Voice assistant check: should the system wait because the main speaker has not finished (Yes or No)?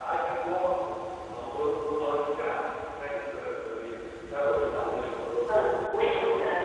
No